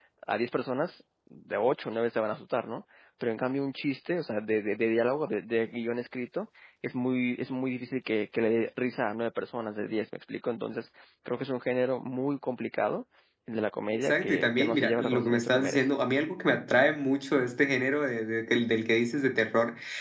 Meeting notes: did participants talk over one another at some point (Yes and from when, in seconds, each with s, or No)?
Yes, from 13.9 s